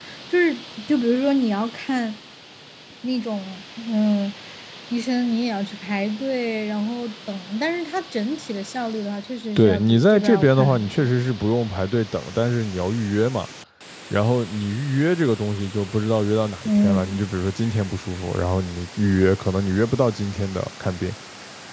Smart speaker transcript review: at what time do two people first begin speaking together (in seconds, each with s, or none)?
9.6 s